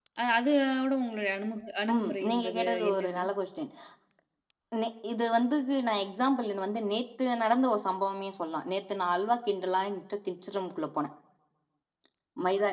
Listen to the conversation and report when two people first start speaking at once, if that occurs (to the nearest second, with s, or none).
2 s